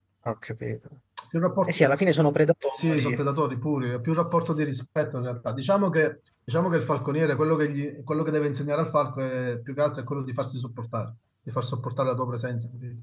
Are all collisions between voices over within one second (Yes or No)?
Yes